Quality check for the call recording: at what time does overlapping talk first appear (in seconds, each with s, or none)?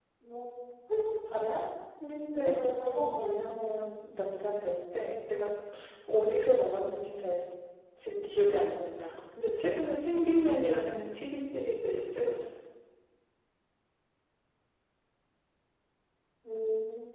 2.3 s